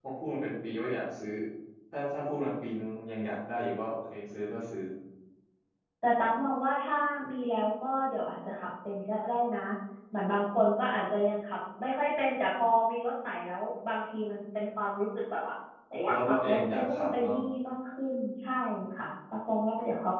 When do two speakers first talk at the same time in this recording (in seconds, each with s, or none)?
16.1 s